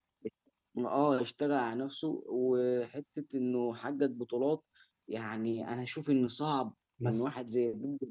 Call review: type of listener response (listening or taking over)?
listening